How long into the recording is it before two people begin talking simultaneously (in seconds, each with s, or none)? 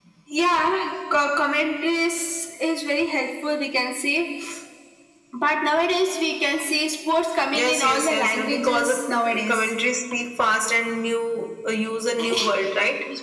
7.5 s